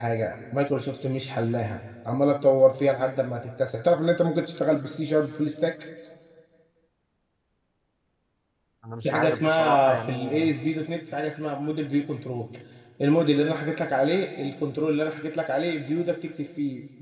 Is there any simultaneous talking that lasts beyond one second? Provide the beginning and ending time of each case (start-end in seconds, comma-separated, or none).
9.0-10.4